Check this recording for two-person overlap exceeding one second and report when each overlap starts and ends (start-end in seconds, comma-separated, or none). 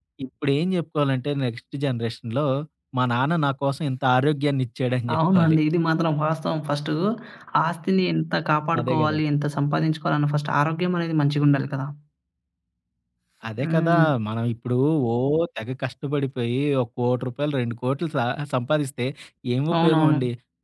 none